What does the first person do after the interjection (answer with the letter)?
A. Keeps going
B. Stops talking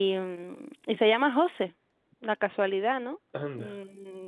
A